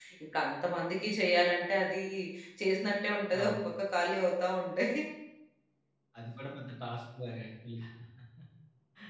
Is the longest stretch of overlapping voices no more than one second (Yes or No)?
Yes